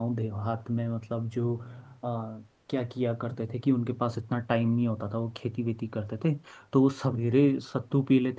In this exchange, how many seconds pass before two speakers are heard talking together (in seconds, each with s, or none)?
none